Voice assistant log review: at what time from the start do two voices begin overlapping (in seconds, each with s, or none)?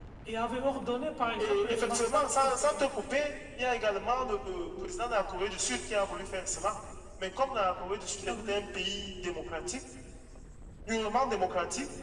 1.4 s